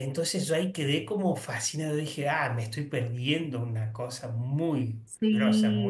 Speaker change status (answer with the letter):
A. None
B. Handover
B